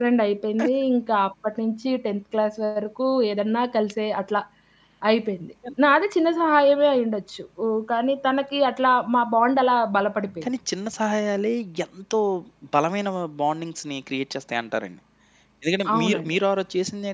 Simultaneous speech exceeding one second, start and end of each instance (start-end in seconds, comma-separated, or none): none